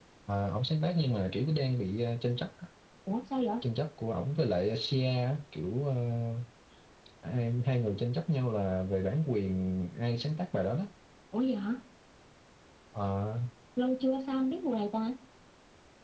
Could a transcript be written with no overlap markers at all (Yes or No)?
Yes